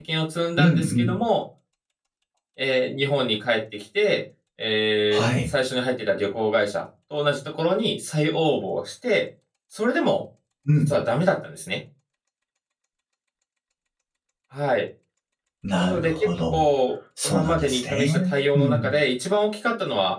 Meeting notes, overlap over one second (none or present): present